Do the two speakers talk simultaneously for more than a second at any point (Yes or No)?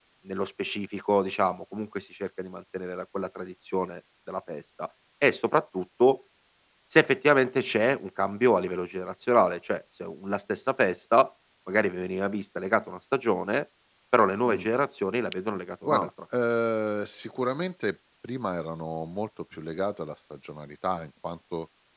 No